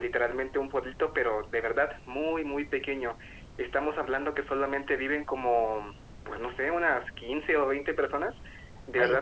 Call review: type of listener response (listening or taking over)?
listening